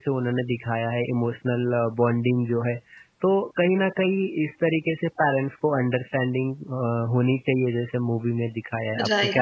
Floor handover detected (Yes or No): Yes